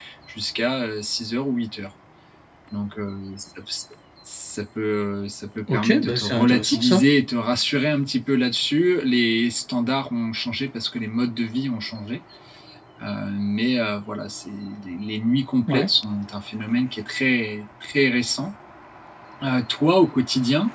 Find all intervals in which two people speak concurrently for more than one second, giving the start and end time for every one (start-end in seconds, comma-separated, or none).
5.7-7.0